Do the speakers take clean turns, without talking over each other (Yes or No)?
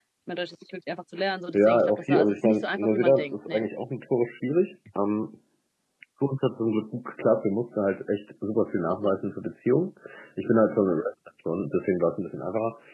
No